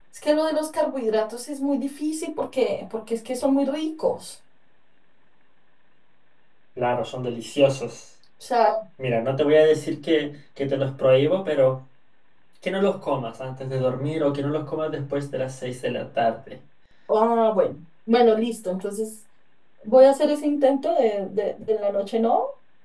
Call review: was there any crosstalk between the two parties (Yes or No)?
No